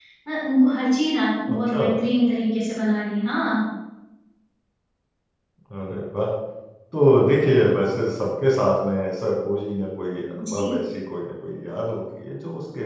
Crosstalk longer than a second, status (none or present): none